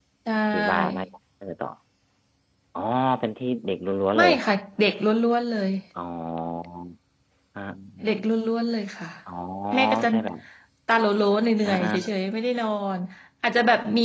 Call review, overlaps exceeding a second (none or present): none